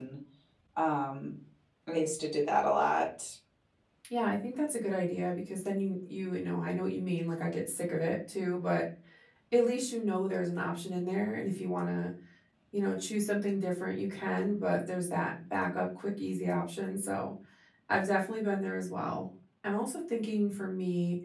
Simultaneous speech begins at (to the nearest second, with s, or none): none